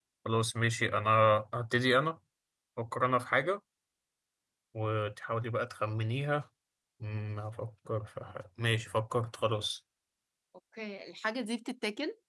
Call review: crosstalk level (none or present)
none